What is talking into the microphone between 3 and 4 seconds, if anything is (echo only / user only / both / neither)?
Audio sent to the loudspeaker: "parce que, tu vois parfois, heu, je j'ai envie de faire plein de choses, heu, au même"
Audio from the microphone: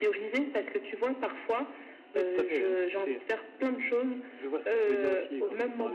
both